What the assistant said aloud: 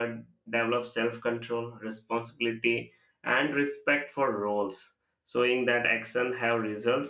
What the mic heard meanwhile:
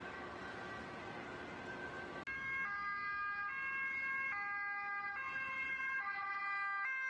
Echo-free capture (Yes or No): Yes